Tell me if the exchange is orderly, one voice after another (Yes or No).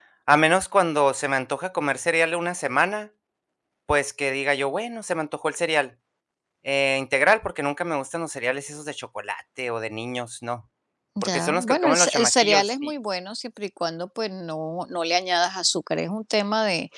No